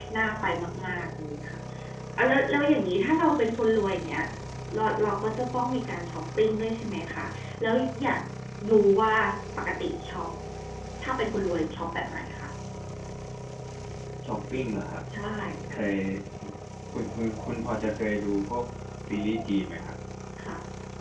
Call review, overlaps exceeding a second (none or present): none